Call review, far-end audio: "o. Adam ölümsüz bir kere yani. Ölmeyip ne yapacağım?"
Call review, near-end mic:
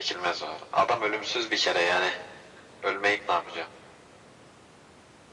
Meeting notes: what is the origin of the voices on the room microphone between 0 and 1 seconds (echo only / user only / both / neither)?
echo only